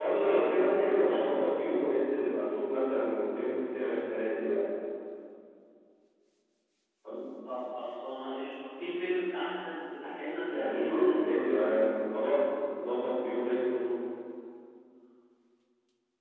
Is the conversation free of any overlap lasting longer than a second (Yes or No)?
No